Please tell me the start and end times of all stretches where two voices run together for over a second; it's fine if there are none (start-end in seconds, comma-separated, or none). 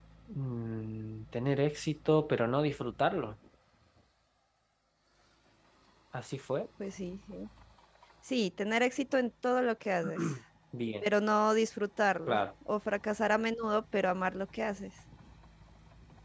none